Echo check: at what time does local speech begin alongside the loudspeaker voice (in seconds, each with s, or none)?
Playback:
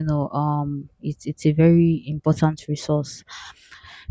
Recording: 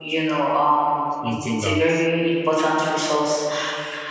1.1 s